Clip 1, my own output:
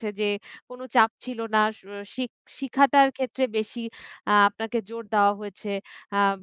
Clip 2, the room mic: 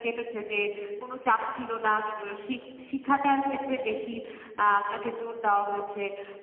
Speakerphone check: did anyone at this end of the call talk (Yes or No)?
No